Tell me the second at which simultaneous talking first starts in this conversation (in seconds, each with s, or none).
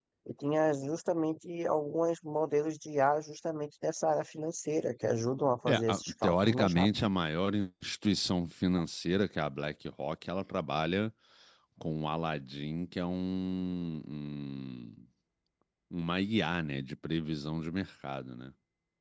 5.7 s